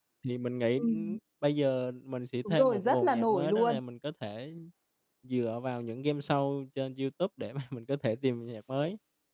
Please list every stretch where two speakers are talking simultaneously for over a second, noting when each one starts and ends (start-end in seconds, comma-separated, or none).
2.5-3.8